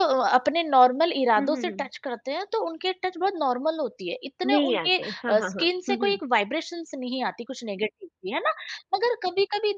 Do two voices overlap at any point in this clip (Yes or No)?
Yes